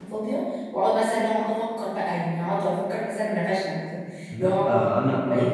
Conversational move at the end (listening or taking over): taking over